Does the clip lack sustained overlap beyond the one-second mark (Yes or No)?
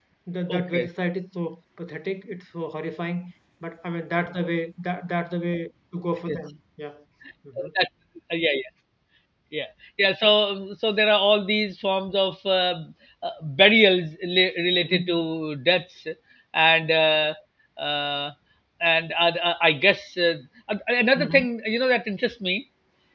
Yes